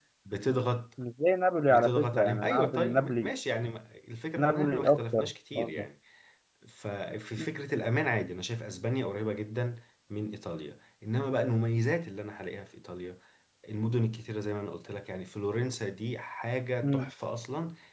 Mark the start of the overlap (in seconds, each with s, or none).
1.7 s